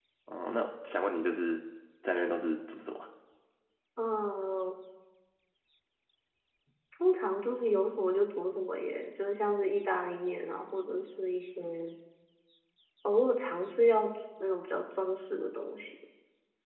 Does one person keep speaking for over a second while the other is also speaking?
No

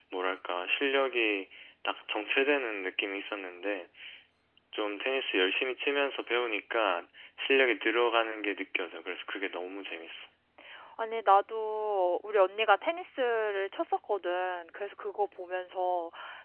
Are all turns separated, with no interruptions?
Yes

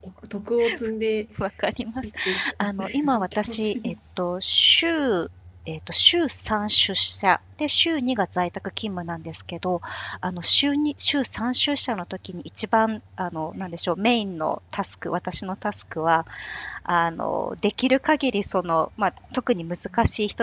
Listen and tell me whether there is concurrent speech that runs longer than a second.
Yes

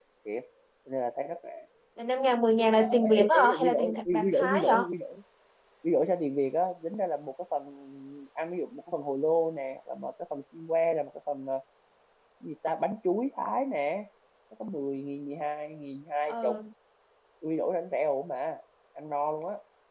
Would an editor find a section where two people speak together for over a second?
Yes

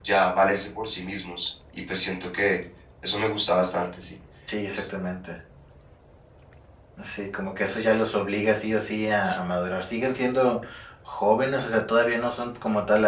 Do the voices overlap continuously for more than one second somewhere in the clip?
No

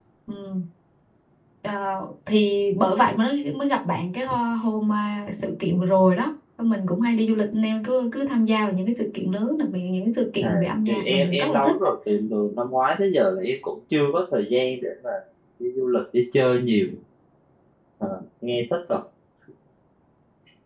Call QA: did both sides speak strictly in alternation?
No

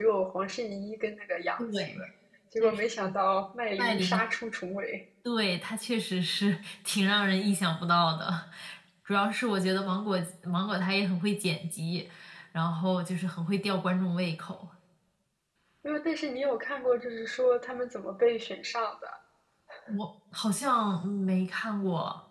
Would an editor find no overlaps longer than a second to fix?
Yes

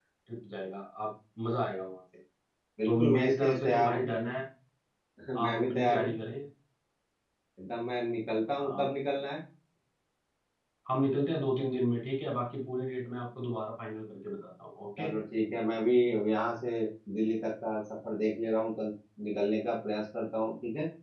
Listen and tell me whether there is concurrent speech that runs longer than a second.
Yes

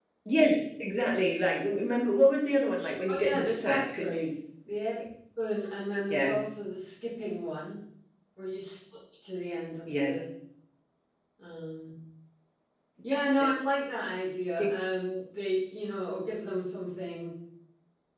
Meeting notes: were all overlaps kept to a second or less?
No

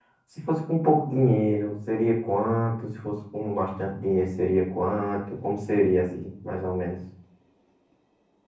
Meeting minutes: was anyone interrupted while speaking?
No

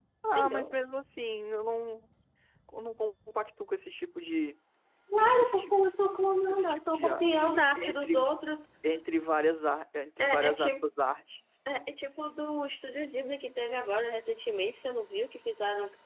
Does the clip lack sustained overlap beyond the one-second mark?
No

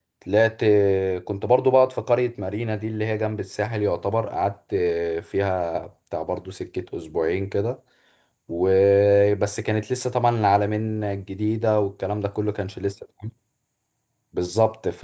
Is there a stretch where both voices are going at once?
No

